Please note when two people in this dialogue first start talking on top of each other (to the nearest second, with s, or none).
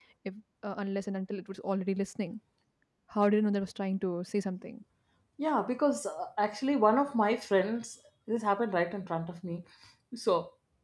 none